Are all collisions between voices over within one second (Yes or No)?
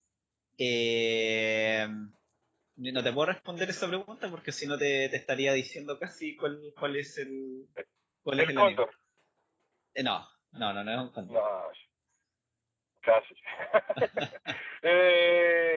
Yes